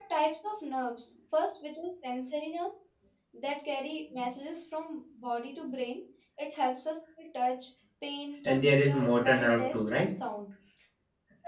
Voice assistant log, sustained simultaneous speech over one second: present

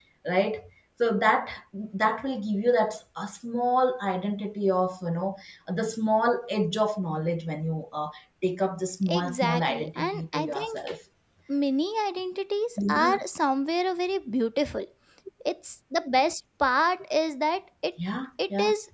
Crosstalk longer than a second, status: present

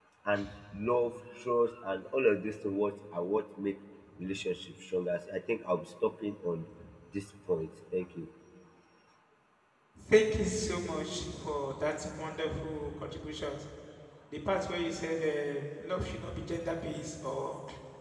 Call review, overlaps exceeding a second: none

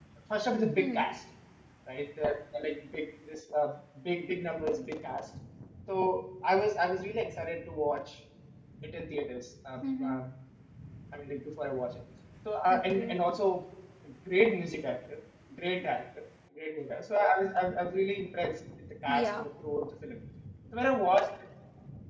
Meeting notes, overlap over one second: none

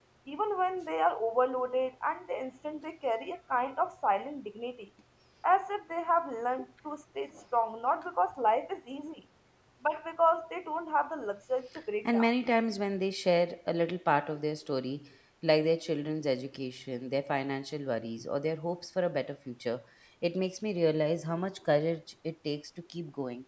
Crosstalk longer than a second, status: none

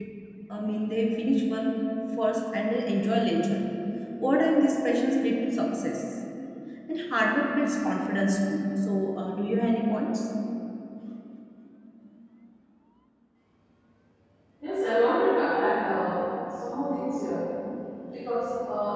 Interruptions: none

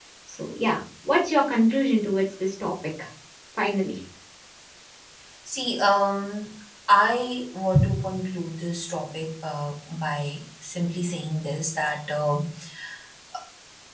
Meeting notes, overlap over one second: none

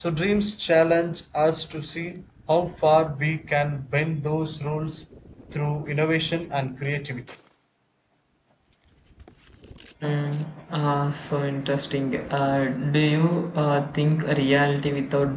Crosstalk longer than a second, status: none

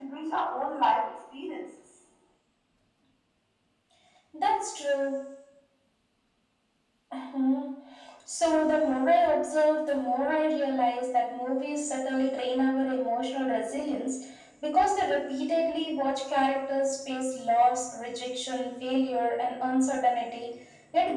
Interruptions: none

